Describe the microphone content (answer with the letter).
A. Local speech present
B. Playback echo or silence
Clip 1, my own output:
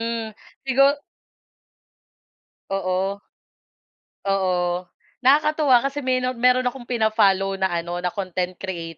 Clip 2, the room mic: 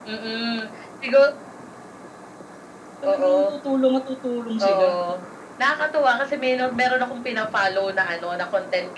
A